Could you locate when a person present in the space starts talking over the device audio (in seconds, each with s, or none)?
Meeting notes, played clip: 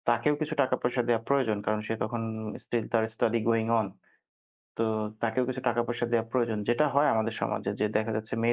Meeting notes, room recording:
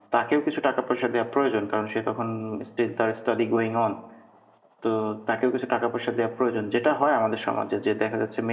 none